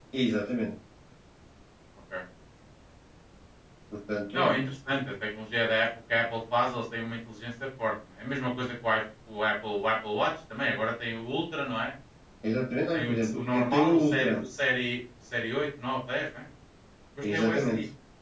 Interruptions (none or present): present